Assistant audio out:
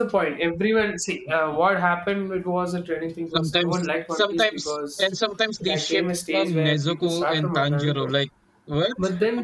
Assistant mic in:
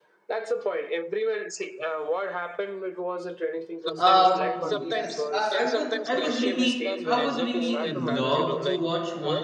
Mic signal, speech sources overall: both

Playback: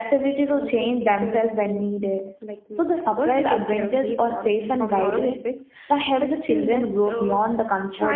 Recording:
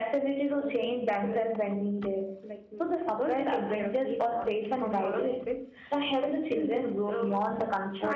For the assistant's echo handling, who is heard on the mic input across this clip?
echo only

